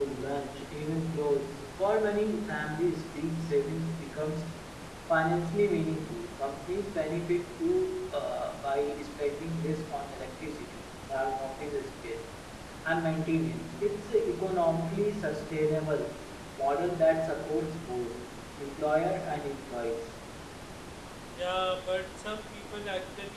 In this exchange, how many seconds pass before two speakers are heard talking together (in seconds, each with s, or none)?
none